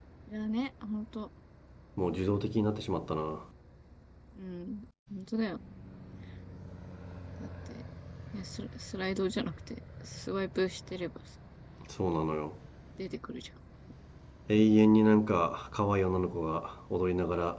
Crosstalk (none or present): none